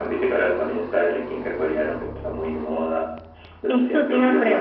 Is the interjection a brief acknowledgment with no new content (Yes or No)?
No